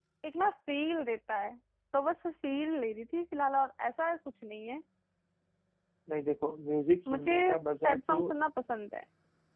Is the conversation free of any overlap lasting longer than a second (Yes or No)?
Yes